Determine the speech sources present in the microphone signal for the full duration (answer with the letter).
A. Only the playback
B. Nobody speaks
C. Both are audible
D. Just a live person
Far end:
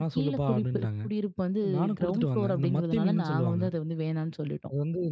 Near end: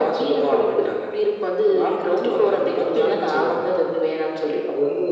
A